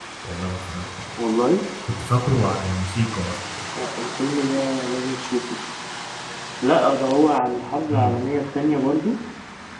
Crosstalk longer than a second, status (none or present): none